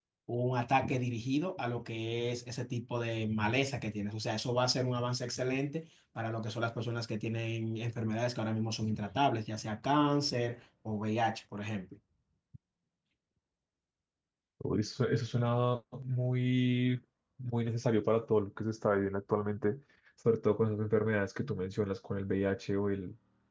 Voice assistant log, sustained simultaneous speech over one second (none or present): none